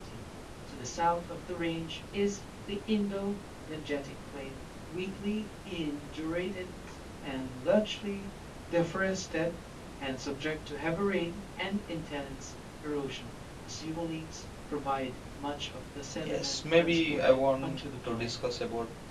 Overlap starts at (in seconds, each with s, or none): 16.2 s